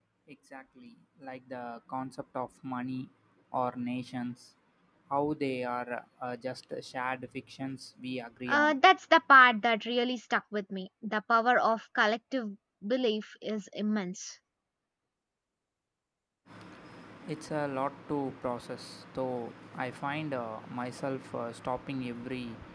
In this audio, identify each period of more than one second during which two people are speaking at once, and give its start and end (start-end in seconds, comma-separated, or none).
none